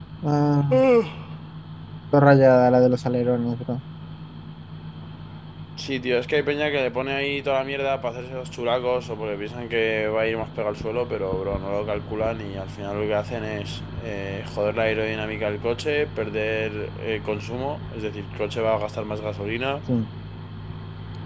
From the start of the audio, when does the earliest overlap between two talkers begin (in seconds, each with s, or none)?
none